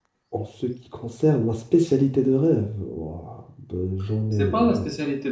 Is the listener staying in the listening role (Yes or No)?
No